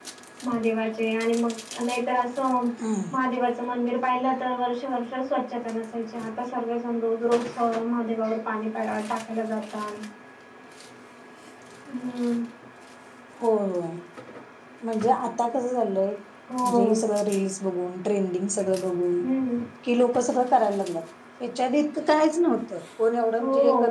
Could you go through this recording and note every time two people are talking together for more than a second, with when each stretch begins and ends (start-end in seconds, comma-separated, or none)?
none